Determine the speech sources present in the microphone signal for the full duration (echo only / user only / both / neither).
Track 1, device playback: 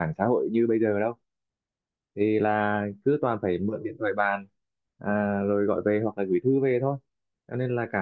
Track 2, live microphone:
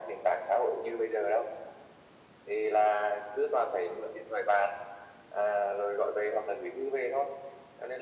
echo only